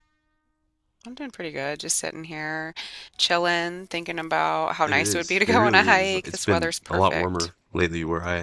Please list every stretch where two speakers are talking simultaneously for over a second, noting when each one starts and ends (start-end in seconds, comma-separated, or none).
4.8-7.3